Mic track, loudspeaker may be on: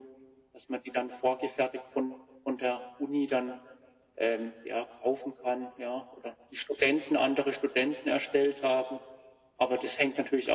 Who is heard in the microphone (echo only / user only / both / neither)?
echo only